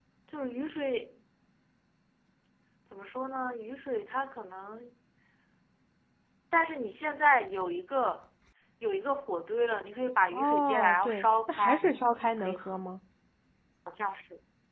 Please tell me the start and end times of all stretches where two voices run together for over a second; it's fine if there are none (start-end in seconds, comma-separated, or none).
10.3-11.9